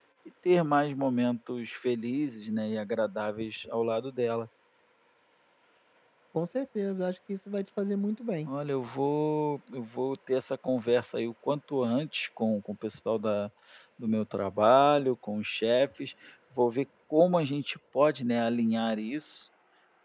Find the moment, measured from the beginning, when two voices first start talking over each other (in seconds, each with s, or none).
none